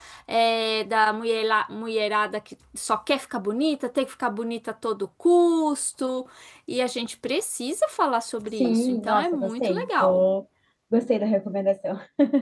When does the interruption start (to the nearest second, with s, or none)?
9 s